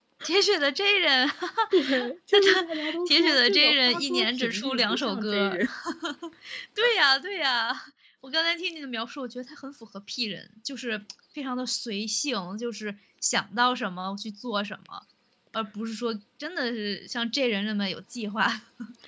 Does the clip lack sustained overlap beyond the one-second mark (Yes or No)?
No